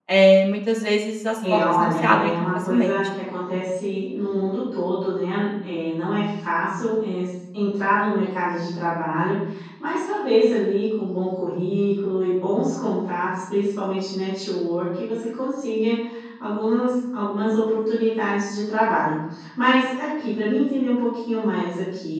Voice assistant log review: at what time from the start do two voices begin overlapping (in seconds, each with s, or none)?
1.4 s